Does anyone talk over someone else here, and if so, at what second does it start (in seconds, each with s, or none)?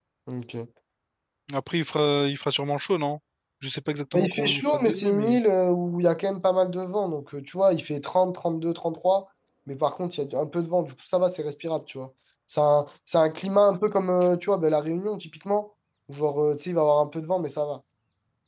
4.2 s